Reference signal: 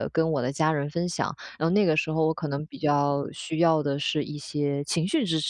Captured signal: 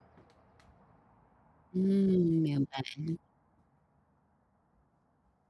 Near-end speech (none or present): present